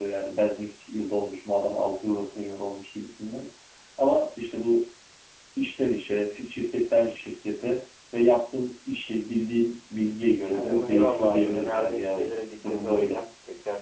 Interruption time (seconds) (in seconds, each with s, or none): 10.5 s